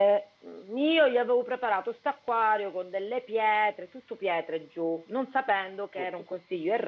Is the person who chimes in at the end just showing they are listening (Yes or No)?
Yes